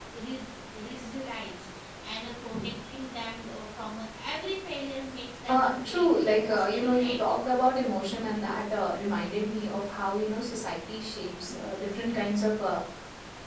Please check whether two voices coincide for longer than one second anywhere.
Yes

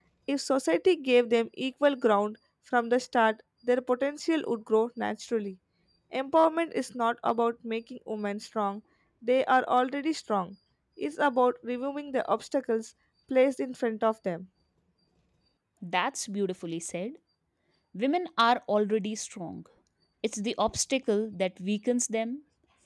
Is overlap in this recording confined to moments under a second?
Yes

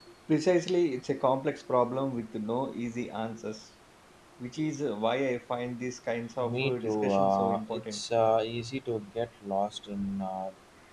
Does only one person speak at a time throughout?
No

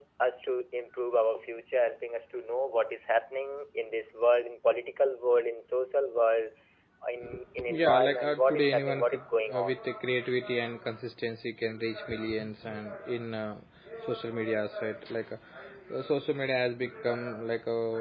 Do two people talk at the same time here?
Yes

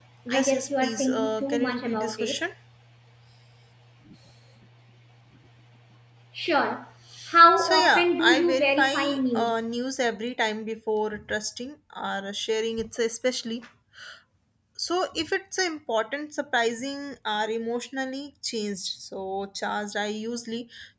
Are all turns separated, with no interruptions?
No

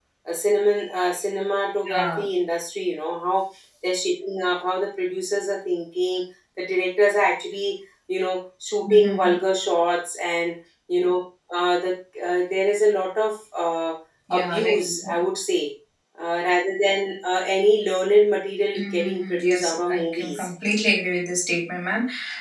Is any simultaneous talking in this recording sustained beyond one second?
Yes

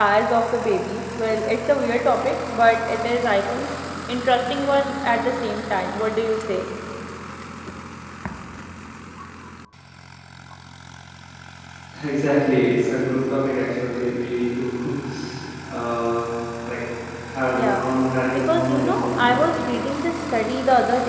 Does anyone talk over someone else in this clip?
Yes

